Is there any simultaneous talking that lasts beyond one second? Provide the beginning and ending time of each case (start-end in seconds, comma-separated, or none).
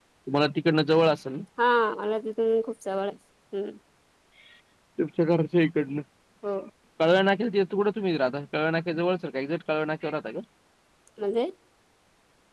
none